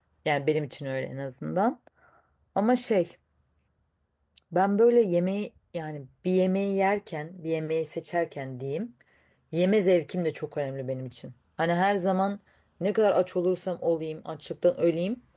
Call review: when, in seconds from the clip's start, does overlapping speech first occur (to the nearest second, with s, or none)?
none